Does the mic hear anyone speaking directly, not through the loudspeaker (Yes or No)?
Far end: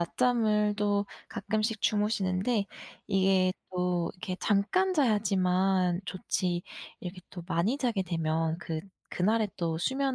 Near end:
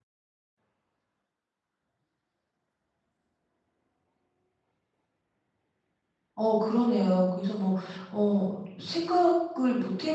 Yes